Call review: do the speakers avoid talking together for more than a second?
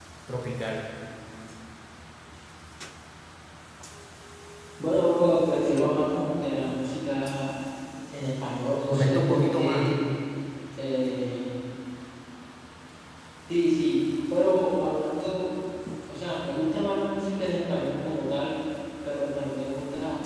No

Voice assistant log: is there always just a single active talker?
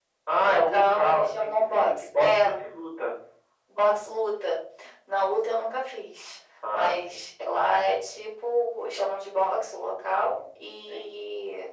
No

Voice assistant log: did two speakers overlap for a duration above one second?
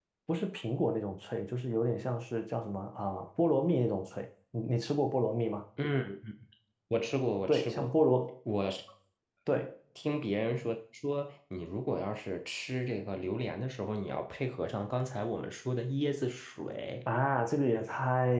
No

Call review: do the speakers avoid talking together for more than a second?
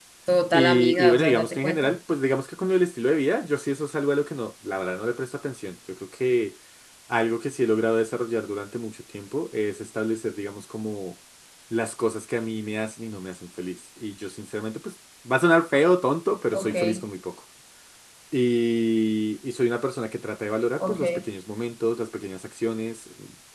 No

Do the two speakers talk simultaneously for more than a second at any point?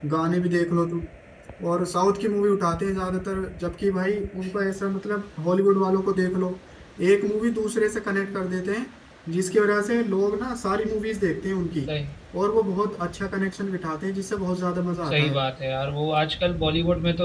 No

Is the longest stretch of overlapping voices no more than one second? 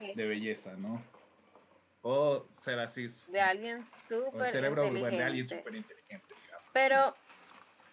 No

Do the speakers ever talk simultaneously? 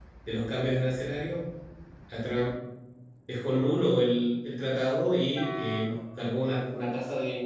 No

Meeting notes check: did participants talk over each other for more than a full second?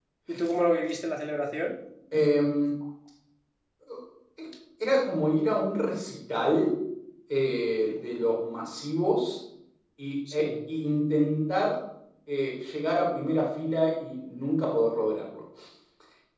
No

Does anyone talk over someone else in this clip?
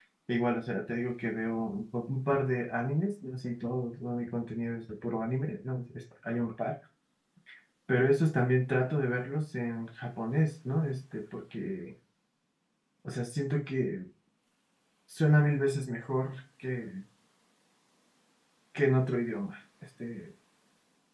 No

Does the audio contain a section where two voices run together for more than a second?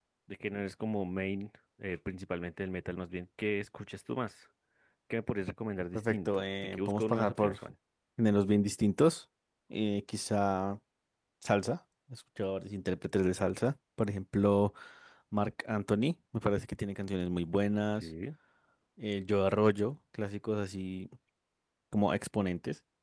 Yes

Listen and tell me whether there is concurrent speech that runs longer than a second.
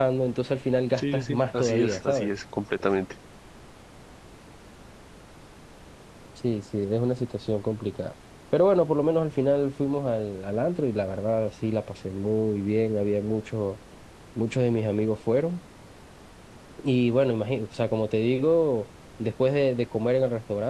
Yes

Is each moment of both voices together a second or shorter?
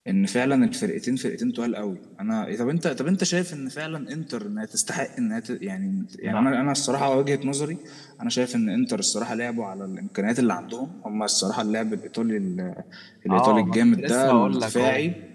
No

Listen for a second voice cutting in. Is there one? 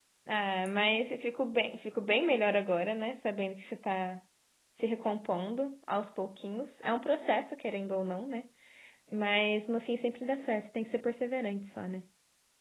No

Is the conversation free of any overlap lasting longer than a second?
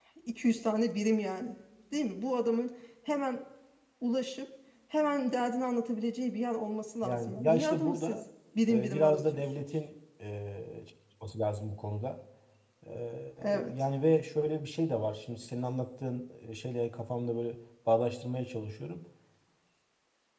No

